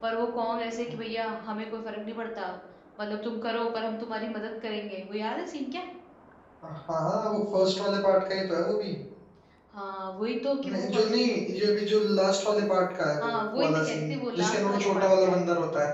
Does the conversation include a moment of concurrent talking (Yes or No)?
Yes